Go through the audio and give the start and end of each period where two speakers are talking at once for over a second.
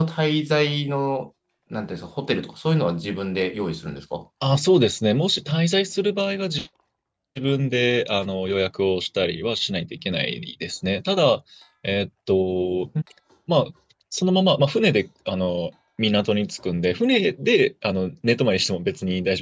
none

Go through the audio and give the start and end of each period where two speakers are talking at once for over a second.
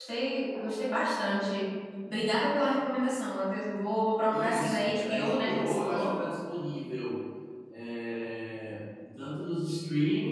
4.3-6.1

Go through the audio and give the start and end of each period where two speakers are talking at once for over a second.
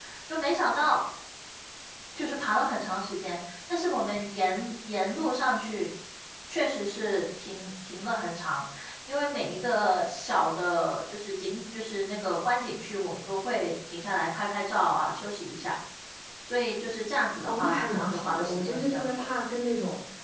17.4-19.2

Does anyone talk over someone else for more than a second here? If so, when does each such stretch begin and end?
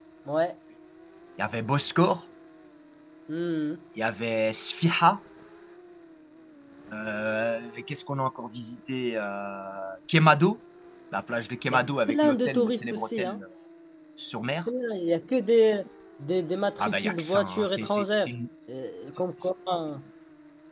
12.1-13.4, 16.8-18.3

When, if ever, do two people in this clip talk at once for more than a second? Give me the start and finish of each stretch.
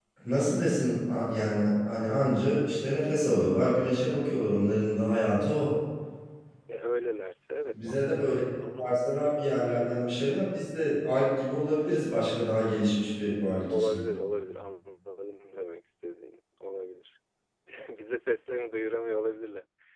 none

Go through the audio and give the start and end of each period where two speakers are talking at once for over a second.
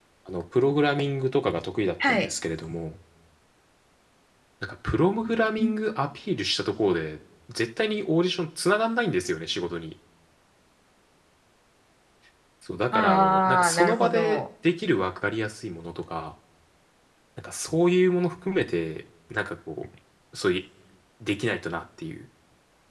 12.9-14.4

